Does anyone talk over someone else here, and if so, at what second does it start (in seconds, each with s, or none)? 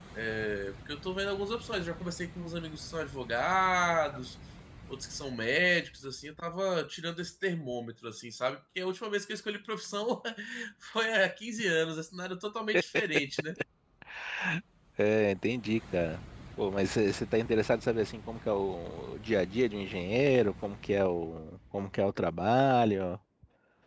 none